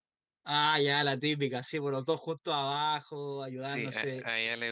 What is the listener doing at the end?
taking over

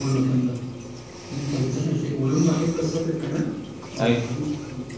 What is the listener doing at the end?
listening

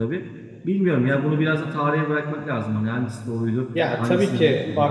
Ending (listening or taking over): taking over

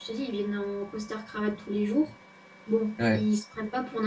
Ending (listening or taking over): listening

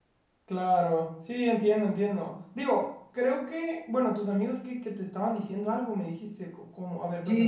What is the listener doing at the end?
taking over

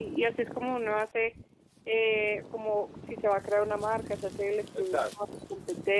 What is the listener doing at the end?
listening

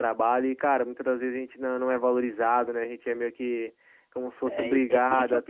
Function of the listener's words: taking over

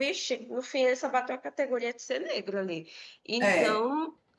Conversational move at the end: listening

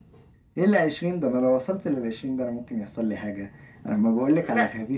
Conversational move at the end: listening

